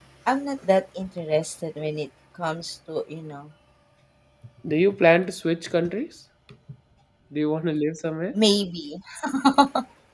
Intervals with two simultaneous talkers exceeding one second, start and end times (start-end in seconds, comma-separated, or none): none